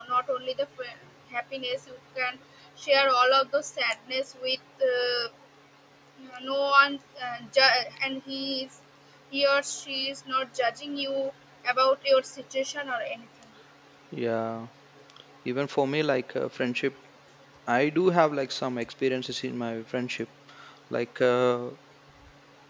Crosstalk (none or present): none